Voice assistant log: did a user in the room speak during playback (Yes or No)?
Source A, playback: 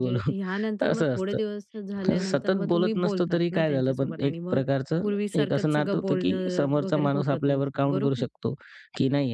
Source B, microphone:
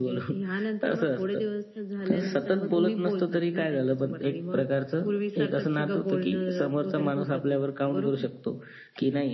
No